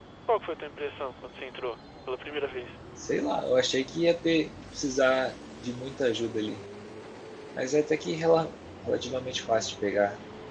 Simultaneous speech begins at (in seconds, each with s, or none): none